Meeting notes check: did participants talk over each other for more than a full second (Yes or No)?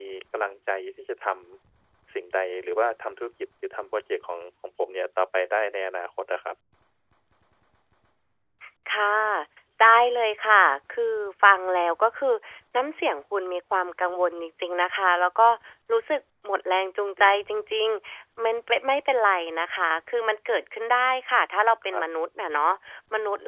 No